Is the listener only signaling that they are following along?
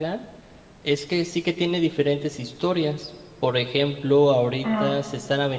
Yes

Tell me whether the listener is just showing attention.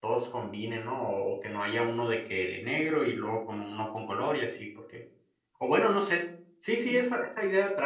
Yes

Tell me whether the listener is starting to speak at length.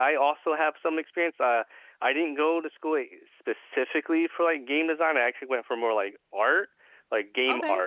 No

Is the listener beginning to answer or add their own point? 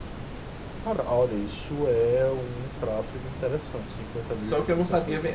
Yes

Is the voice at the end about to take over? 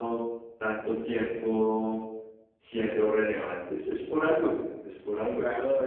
Yes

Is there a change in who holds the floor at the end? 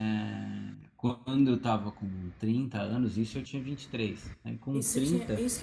Yes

